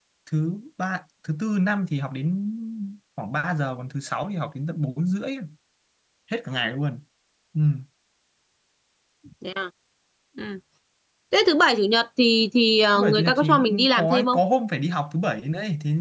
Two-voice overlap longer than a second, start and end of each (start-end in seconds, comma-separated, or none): 13.0-14.4